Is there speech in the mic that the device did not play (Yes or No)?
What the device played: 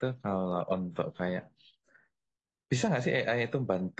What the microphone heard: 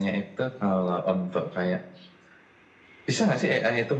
No